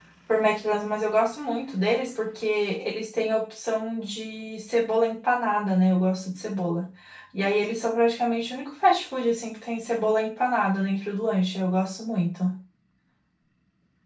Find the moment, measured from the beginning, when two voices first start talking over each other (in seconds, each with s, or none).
none